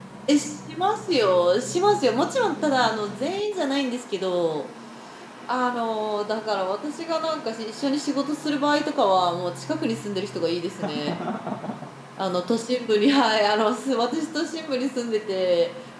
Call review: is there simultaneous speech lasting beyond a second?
No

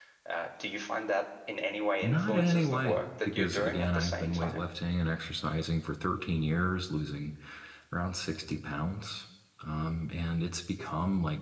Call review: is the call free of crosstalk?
No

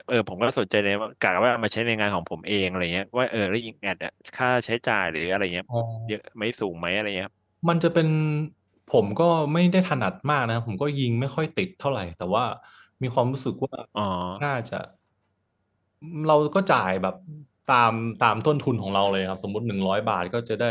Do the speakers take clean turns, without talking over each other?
Yes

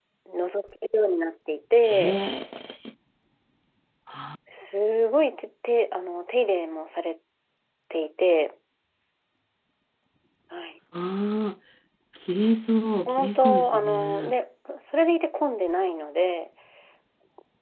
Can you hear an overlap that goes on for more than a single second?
Yes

